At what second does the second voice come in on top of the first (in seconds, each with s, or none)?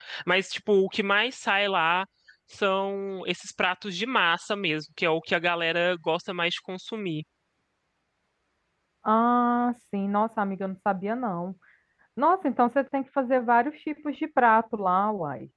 none